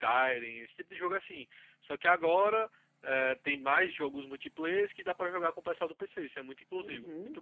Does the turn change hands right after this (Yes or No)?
Yes